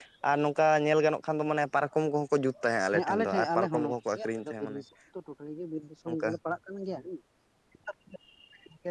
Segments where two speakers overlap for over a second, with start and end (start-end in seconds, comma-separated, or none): 2.9-4.8